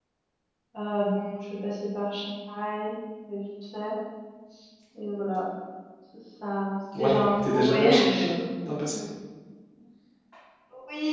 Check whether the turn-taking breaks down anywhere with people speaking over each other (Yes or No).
Yes